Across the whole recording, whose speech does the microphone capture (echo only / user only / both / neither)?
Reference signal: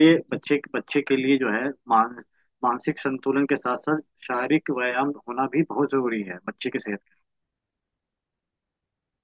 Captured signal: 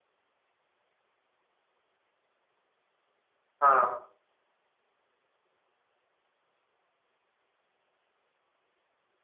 user only